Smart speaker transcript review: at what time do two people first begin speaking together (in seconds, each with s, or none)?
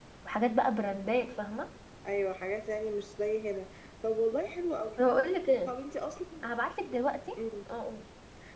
none